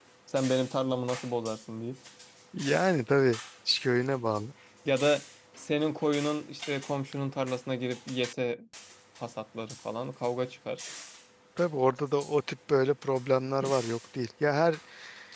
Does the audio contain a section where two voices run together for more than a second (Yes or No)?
No